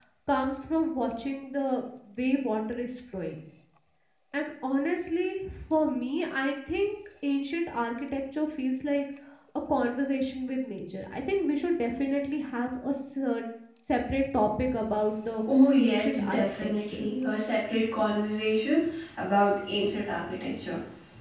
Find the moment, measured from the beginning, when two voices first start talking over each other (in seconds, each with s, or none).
15.8 s